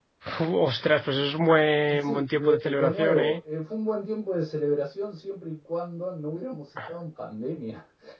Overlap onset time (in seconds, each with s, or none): 1.9 s